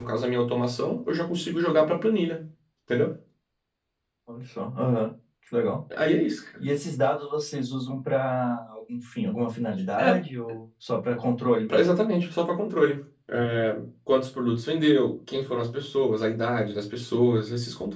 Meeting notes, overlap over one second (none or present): none